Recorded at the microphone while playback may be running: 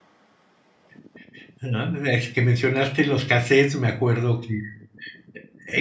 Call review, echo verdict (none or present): none